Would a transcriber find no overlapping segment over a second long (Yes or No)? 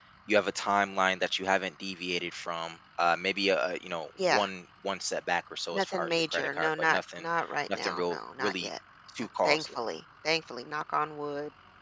No